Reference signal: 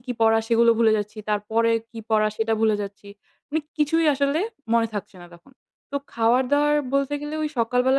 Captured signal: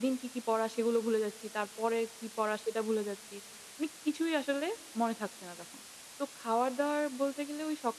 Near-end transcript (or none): none